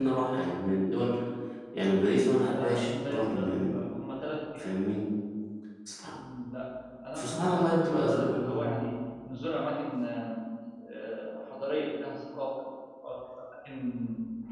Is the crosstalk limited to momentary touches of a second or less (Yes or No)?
No